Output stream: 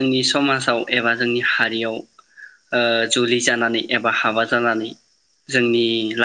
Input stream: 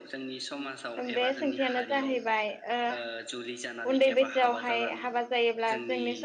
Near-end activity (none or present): present